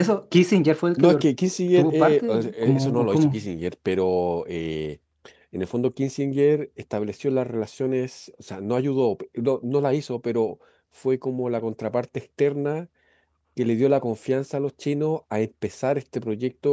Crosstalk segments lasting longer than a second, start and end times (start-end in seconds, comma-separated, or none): 1.8-3.4